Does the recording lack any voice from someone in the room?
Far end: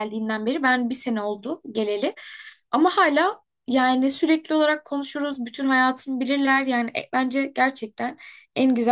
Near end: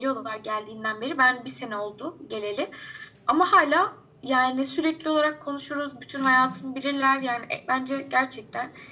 Yes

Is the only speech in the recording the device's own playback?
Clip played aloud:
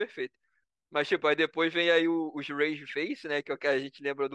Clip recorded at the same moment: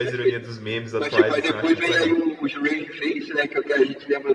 No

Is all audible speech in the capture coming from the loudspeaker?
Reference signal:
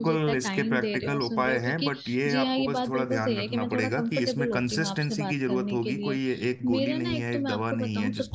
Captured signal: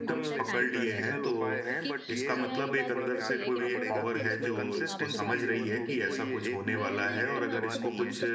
No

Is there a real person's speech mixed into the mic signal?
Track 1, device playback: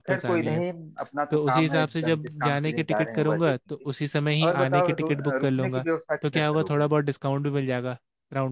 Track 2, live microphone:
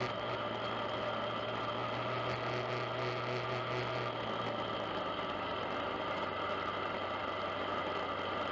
No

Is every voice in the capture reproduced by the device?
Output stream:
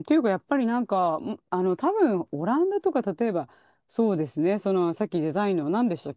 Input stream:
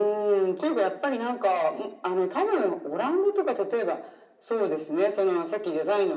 Yes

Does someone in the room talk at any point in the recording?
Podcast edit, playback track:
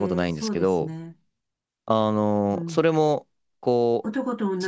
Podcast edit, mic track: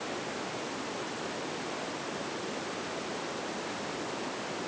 No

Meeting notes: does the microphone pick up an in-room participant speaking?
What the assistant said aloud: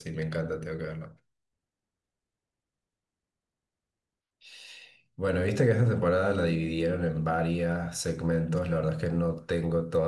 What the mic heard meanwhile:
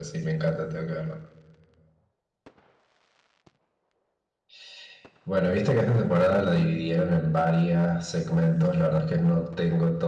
No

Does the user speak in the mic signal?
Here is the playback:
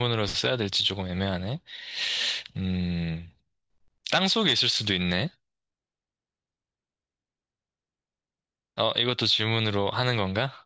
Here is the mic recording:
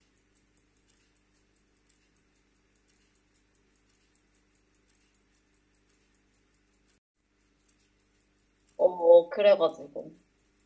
Yes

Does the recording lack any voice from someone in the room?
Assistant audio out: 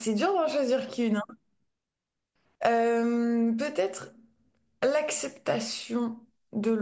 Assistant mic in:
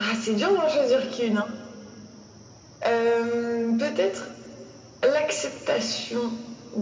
Yes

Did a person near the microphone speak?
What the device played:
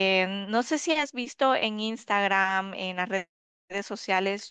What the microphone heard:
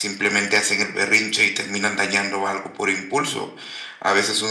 Yes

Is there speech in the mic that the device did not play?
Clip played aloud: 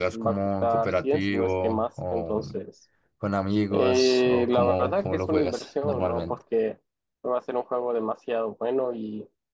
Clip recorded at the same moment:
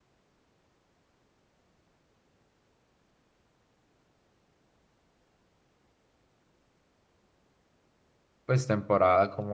Yes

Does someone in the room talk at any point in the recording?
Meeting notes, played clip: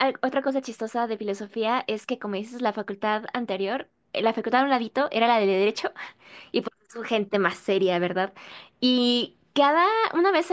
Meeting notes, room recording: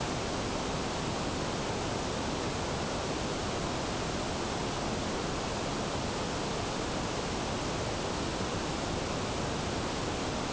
No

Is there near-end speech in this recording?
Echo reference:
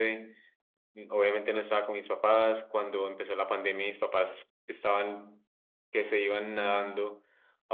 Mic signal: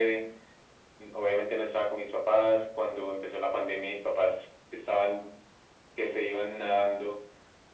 No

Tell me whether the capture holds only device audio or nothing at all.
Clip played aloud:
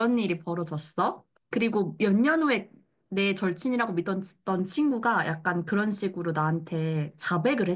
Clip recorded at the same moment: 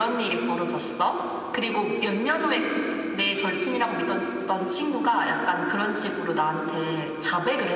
Yes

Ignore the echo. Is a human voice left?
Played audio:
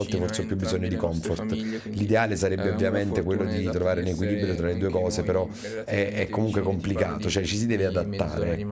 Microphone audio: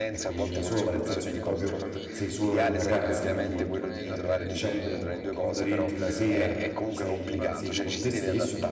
Yes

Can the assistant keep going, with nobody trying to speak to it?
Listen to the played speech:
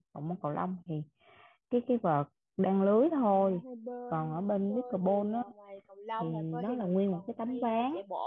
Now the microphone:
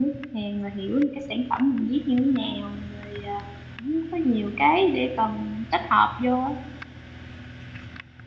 No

